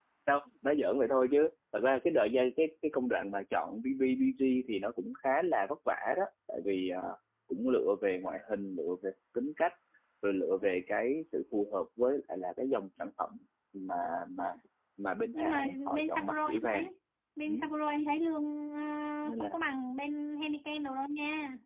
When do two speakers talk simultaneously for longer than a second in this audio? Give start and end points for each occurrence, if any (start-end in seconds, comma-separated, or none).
15.3-16.9